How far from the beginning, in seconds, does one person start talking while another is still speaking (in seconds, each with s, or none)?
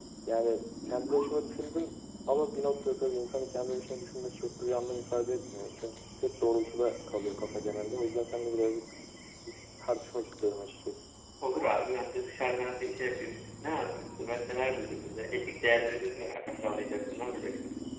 none